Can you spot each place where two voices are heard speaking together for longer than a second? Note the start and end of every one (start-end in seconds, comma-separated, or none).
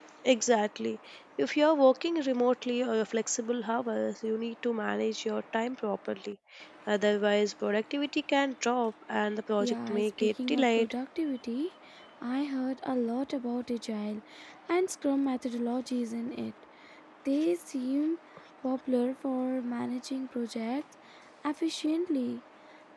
9.6-10.9